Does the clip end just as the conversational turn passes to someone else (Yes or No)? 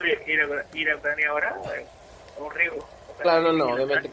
Yes